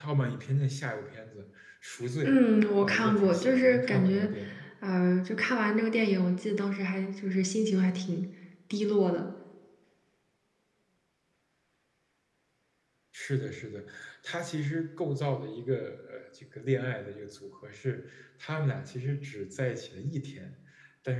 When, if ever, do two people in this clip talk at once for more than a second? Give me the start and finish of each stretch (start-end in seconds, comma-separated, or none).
2.8-4.3